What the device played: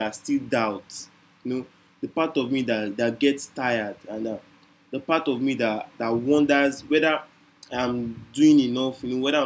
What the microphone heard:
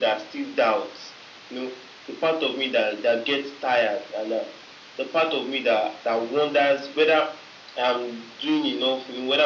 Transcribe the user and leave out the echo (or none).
none